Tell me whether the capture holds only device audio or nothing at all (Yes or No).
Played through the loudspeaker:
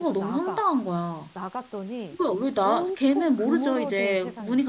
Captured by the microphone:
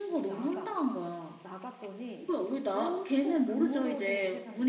Yes